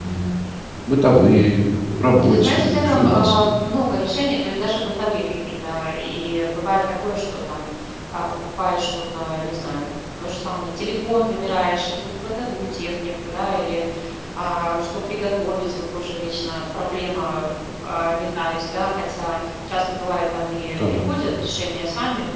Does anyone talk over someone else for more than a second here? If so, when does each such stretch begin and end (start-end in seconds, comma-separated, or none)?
2.2-3.4